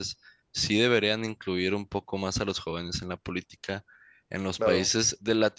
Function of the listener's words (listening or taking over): listening